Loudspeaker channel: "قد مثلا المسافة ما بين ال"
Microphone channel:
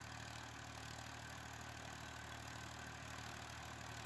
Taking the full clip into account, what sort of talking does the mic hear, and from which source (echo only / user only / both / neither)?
neither